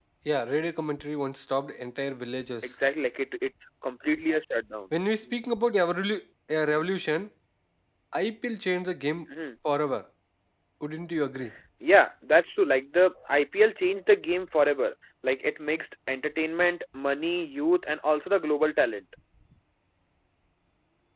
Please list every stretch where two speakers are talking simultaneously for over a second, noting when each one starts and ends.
none

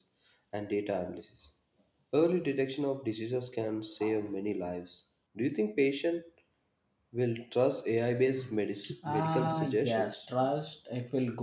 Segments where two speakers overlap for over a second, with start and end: 9.1-10.3

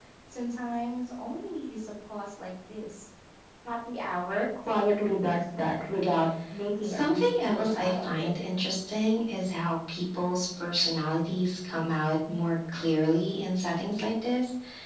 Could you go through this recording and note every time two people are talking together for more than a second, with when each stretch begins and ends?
6.8-8.3

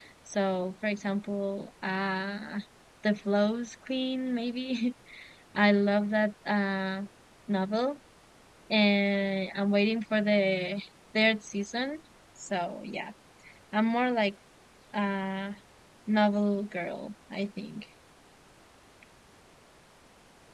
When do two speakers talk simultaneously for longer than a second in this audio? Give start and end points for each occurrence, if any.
none

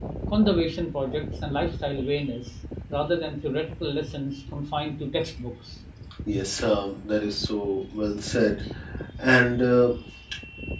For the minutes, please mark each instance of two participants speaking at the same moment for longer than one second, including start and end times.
none

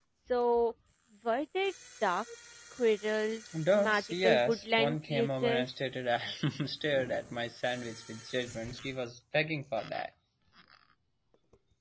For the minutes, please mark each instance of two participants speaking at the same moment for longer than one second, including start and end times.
3.8-5.7

